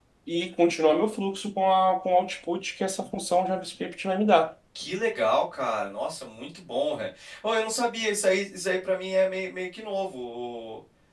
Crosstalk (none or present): none